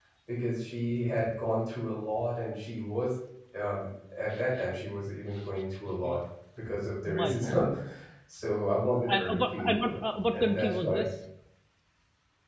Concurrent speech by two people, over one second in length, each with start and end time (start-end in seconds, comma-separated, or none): 9.1-11.0